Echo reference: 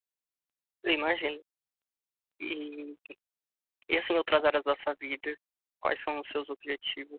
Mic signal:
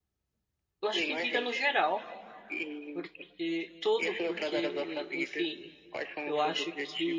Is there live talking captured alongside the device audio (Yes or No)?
Yes